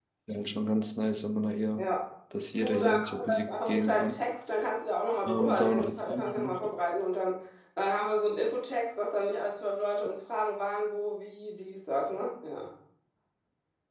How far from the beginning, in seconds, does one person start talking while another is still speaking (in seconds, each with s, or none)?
2.6 s